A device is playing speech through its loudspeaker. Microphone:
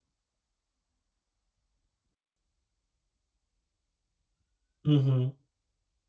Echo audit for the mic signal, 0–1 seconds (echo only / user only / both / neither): neither